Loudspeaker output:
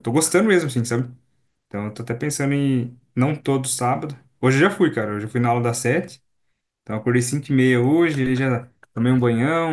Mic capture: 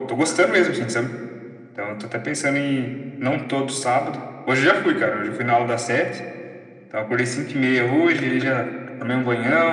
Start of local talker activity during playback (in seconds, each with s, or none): none